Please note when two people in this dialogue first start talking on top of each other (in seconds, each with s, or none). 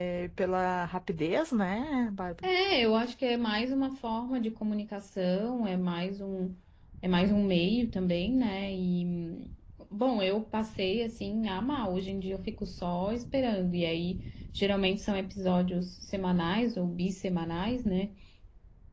none